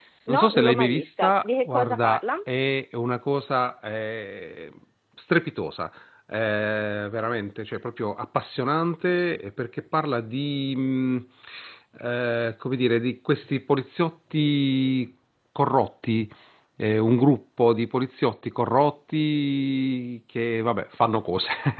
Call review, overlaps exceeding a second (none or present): present